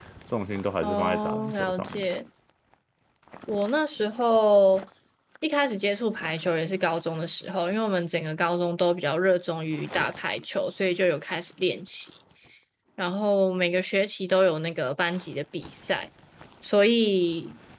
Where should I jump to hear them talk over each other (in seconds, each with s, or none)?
0.8 s